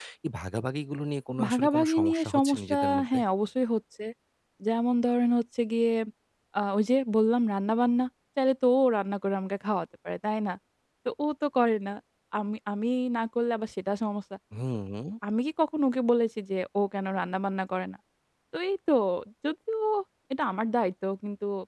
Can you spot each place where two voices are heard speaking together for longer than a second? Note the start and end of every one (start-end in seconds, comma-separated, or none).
1.5-3.2